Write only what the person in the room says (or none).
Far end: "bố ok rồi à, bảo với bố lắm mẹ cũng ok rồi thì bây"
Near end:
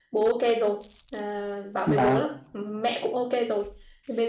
vâng